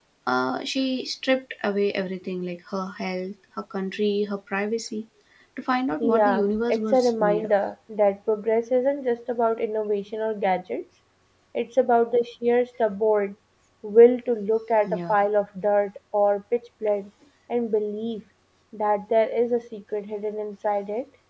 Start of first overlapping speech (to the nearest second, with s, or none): 6 s